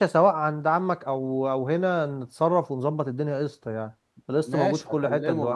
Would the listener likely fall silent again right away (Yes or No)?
No